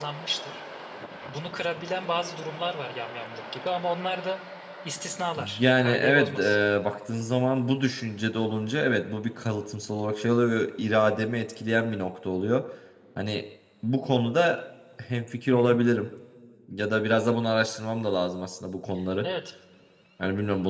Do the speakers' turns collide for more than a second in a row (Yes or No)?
Yes